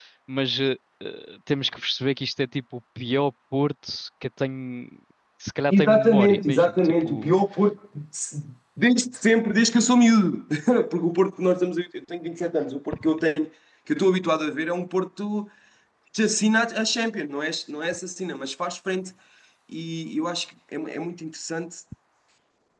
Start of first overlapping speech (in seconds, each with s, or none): 5.7 s